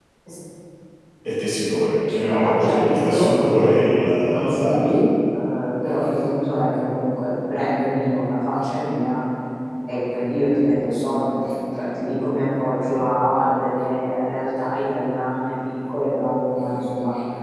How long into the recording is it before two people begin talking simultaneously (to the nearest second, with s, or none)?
2 s